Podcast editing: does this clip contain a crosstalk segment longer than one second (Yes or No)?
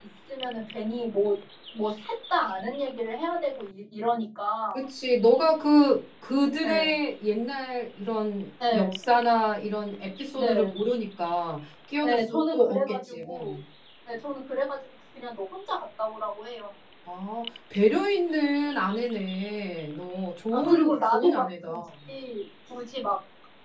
Yes